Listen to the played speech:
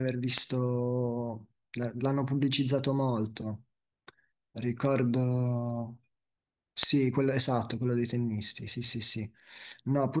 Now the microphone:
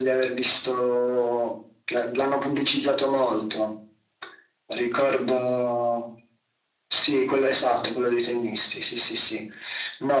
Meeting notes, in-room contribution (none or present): none